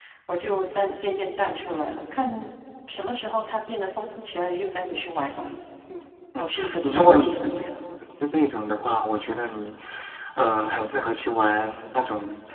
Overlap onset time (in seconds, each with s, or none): 6.4 s